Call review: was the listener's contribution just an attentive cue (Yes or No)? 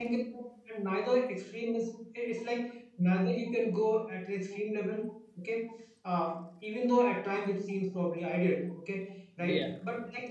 Yes